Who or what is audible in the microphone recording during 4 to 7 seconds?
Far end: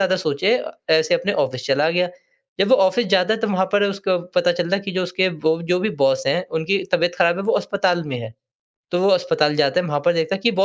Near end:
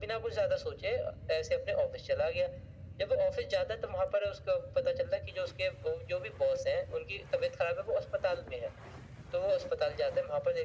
echo only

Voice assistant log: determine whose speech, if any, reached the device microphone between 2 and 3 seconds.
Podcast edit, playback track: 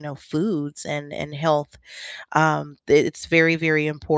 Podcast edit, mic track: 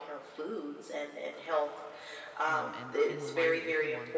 both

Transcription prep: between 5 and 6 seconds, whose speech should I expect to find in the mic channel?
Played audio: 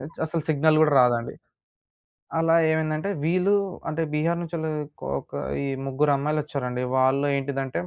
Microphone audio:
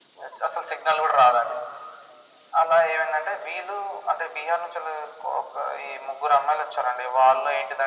echo only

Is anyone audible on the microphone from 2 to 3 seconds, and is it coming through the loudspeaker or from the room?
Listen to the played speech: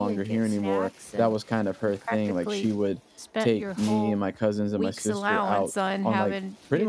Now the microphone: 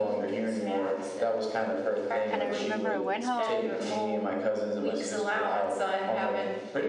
both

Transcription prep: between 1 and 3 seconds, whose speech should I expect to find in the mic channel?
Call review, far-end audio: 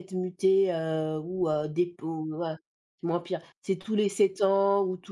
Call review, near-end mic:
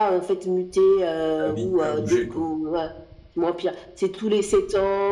both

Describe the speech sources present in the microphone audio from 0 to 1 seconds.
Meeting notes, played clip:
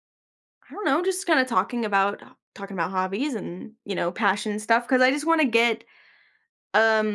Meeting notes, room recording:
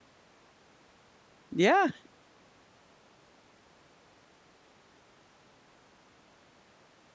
neither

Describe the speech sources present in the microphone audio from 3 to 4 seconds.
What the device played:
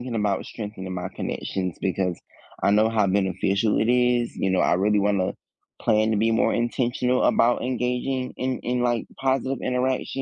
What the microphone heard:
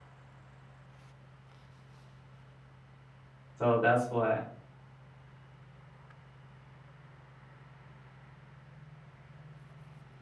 user only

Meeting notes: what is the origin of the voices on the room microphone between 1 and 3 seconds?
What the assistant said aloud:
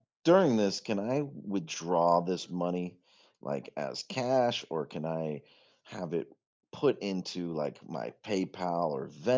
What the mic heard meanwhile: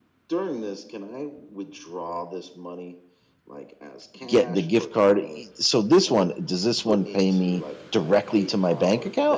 echo only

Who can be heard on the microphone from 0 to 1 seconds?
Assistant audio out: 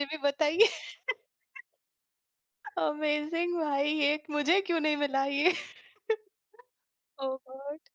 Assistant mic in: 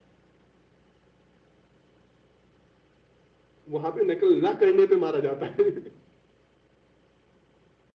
neither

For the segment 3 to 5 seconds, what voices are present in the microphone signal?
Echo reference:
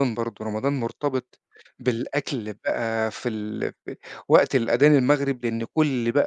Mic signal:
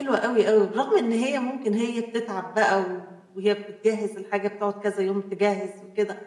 user only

